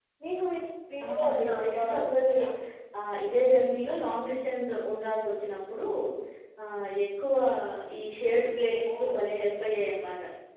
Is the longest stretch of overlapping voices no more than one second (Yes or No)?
No